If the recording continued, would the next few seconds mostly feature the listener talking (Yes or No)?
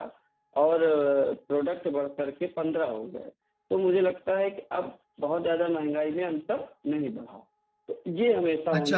Yes